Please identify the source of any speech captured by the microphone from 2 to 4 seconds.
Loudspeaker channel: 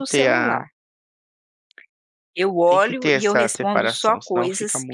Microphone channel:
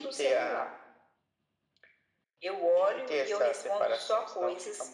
echo only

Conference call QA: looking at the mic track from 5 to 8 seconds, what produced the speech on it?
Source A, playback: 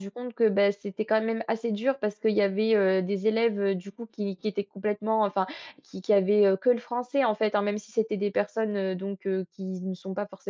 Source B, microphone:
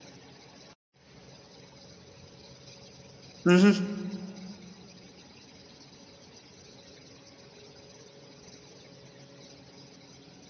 neither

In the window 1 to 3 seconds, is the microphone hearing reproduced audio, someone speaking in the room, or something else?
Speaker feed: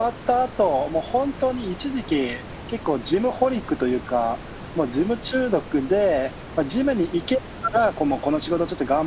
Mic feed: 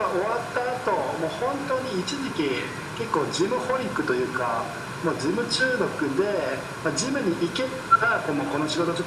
echo only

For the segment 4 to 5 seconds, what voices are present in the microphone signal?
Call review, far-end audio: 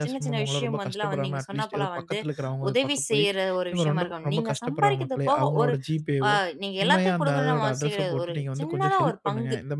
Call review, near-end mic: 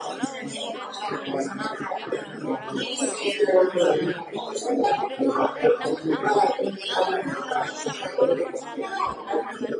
both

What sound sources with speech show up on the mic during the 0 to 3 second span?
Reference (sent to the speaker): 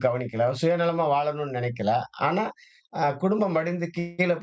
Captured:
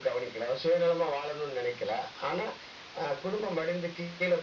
echo only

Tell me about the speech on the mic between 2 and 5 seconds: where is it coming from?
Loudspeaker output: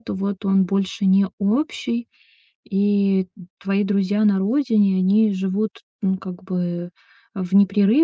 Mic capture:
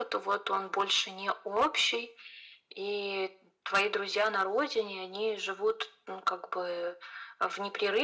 echo only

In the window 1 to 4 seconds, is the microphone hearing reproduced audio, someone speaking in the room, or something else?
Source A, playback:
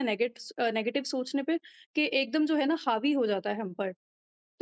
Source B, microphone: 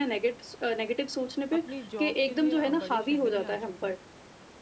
both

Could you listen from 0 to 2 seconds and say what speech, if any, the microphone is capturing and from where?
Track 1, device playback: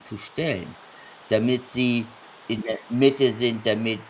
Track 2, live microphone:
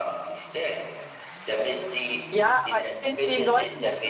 echo only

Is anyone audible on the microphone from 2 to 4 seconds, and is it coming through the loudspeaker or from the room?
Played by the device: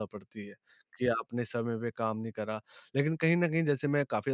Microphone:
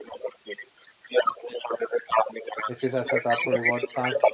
both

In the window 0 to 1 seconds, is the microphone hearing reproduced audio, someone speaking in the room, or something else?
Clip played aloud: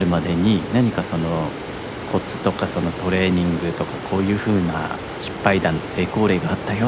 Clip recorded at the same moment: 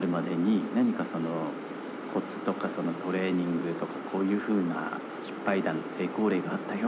echo only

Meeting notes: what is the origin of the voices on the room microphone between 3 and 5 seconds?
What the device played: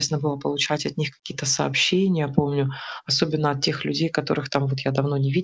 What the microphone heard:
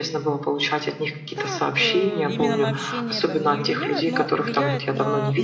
both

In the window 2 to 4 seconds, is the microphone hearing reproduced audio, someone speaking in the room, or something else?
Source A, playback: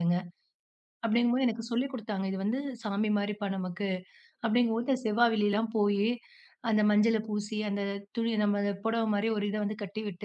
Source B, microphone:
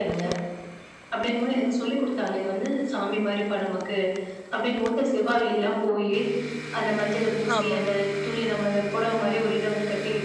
echo only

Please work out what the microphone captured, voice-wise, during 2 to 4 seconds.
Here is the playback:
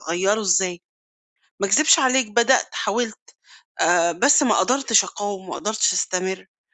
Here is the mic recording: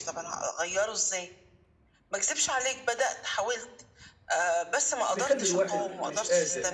echo only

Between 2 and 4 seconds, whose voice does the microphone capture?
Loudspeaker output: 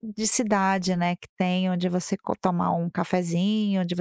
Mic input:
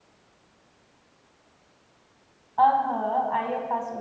user only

